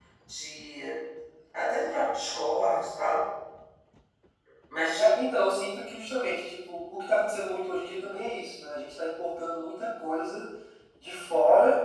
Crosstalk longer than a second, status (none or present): none